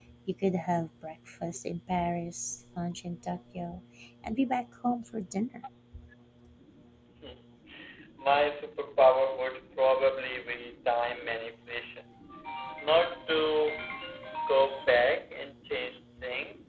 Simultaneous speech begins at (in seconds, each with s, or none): none